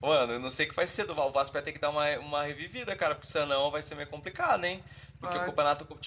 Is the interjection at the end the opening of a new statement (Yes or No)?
No